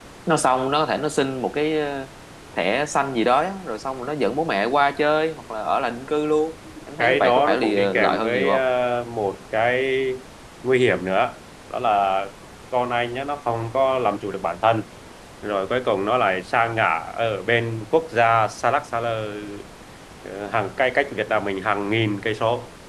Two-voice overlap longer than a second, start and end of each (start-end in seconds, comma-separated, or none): 7.0-8.6